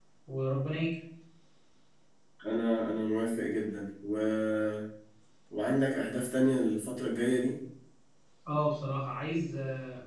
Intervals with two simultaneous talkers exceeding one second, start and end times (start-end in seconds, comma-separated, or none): none